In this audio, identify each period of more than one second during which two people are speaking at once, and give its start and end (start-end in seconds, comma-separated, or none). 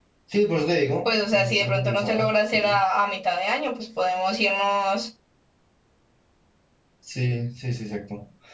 1.0-2.8